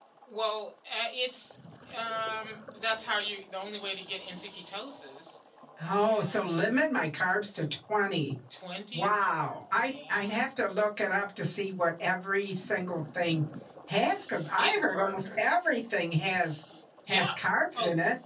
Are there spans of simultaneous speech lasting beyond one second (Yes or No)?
Yes